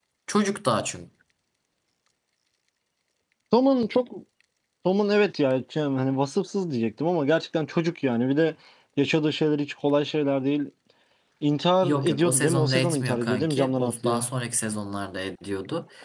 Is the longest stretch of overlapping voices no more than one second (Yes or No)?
No